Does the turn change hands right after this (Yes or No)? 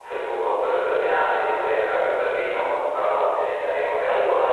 Yes